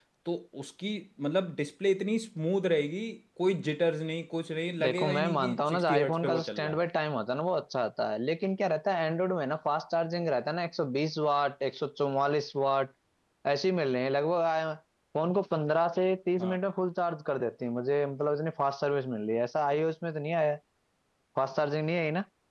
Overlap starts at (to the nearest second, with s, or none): 5 s